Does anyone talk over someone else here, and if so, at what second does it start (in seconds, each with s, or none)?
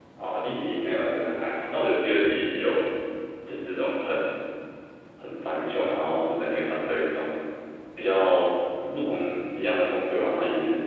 none